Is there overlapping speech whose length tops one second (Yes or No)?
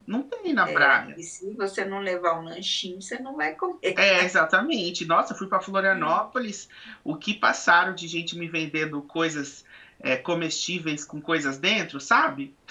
No